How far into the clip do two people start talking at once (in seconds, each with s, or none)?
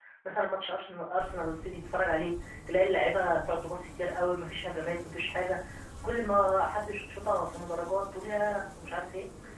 none